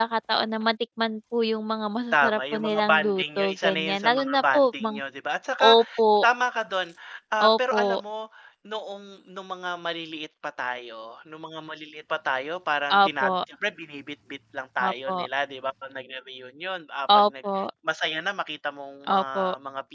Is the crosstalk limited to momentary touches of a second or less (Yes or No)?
No